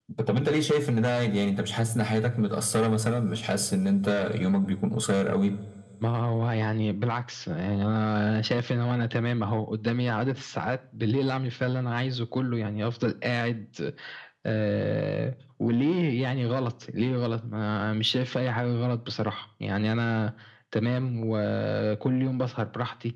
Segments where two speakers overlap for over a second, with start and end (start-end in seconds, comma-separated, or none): none